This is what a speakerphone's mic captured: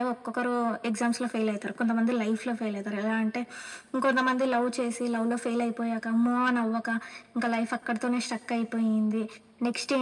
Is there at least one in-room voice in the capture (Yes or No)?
No